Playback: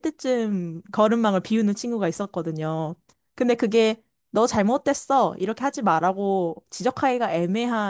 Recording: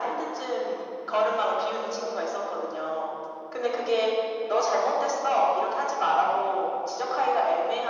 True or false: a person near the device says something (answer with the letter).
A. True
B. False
B